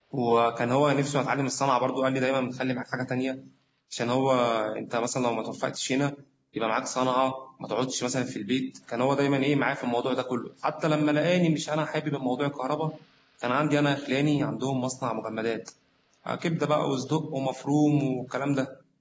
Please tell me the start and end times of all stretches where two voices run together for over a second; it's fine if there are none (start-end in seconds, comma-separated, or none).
none